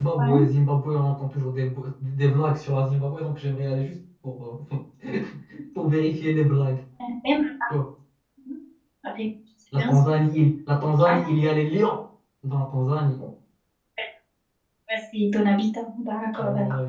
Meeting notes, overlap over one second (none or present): none